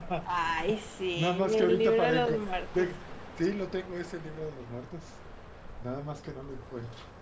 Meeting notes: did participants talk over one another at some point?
Yes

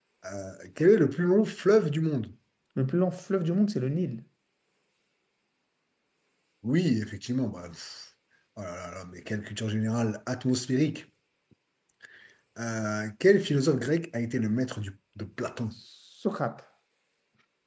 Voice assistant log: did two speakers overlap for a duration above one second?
No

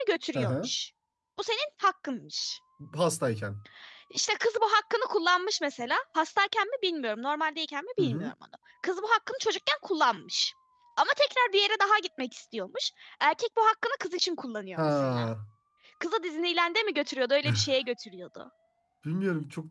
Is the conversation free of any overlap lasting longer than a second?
Yes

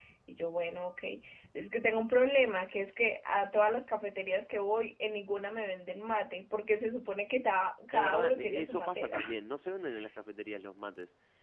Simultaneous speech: Yes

